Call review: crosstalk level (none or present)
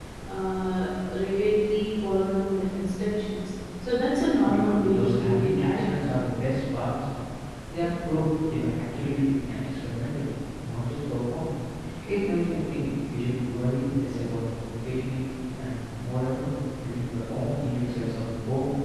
present